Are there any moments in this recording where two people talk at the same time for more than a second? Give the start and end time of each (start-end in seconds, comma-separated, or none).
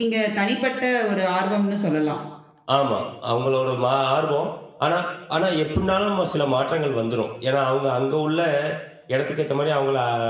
none